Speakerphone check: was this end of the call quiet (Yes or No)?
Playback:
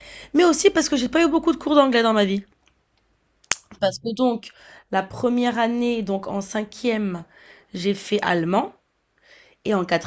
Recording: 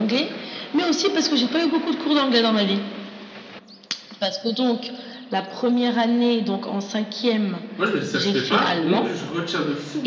No